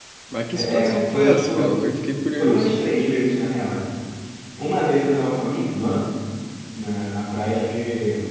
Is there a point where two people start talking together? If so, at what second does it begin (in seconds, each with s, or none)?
0.5 s